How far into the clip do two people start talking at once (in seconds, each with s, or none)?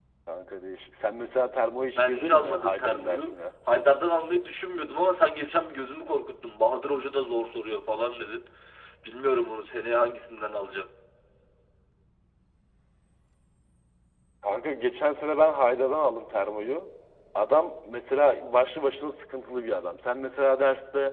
1.9 s